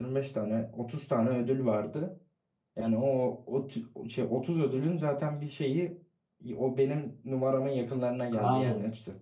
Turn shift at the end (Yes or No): Yes